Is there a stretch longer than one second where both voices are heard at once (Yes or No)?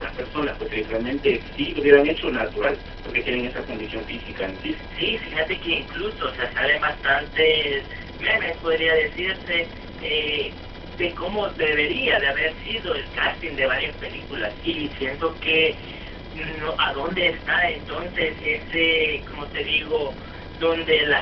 No